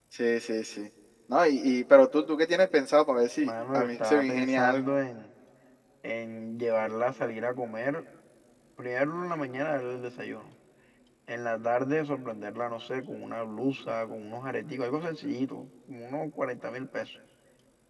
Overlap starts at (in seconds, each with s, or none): 3.4 s